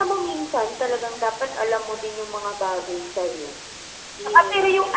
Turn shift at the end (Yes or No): No